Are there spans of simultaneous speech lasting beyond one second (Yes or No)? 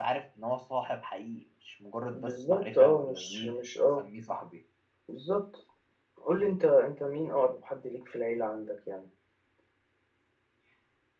Yes